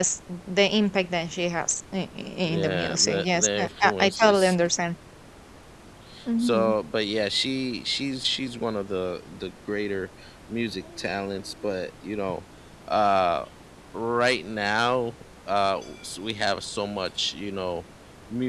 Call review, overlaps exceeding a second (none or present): present